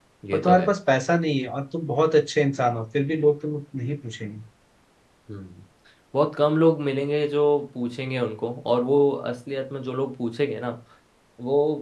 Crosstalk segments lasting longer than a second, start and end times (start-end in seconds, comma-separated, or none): none